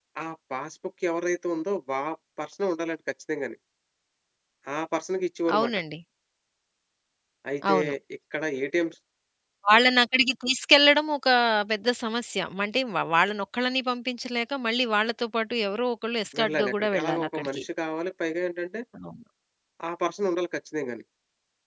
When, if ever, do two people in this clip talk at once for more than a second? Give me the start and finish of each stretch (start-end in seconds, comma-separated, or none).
16.4-17.6